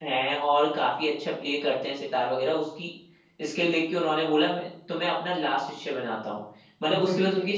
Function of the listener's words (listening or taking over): listening